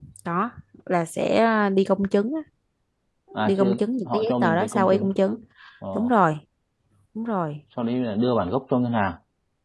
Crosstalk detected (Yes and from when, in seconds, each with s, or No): Yes, from 3.5 s